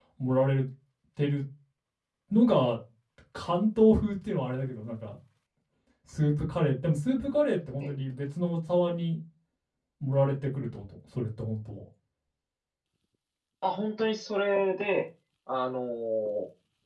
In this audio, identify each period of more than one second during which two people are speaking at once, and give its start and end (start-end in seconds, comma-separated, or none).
none